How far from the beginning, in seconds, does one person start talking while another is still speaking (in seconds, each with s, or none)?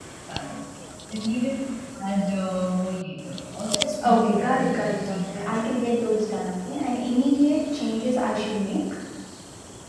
4.0 s